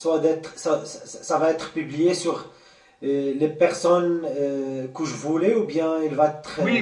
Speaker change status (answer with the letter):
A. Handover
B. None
A